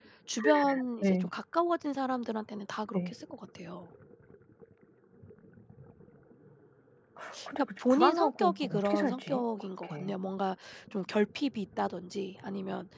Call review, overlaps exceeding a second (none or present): present